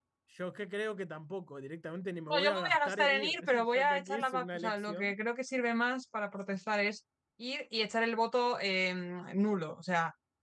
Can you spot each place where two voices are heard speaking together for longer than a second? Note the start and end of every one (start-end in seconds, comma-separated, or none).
2.3-5.1